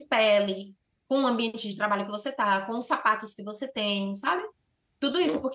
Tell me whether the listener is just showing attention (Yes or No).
Yes